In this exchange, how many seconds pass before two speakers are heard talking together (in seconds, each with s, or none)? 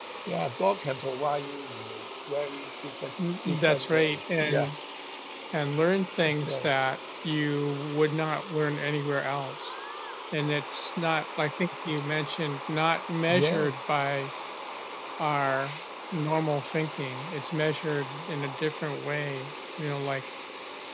3.5 s